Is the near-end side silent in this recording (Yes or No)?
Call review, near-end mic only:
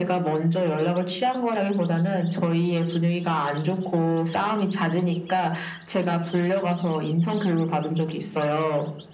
Yes